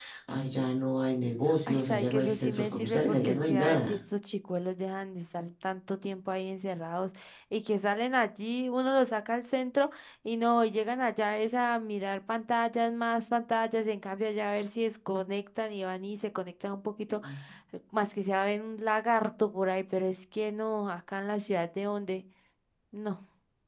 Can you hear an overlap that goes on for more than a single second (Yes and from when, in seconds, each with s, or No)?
Yes, from 1.7 s